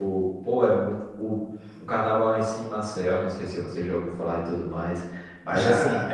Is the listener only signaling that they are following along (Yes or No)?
Yes